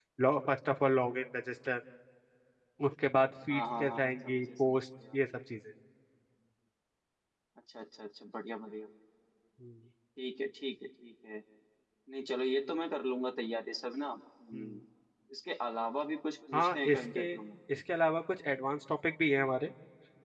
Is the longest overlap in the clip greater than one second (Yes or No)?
Yes